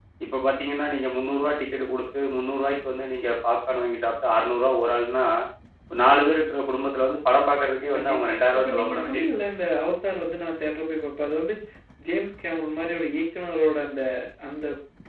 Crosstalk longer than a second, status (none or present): present